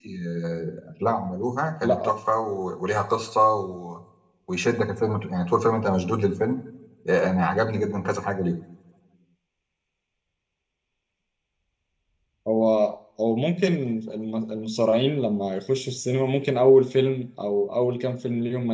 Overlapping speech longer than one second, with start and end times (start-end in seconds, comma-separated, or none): none